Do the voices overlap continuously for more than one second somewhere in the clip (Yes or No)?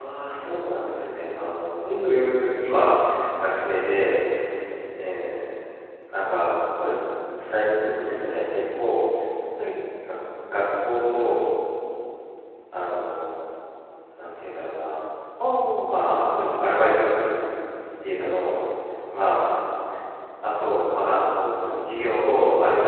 No